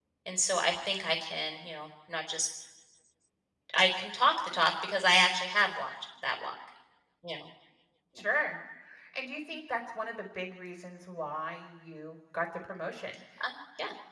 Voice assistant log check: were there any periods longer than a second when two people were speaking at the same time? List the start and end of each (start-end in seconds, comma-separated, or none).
none